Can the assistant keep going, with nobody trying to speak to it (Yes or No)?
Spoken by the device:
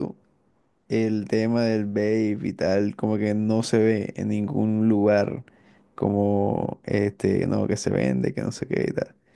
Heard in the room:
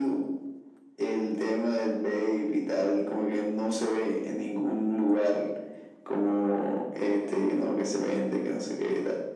Yes